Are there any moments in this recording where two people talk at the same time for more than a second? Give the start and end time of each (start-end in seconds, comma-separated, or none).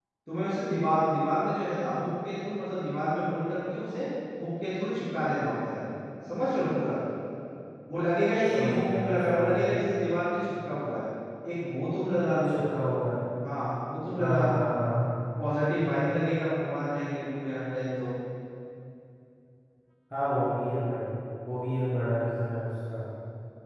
8.5-9.7